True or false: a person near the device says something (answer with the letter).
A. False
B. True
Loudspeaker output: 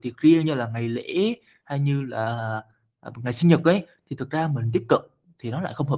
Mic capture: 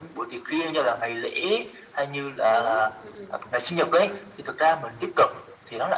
B